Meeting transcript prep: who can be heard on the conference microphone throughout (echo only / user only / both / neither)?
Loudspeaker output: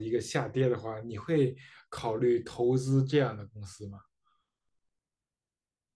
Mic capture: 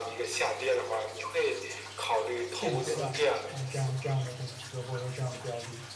both